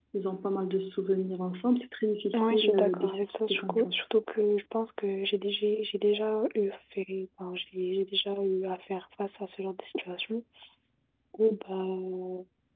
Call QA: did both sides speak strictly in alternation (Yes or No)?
No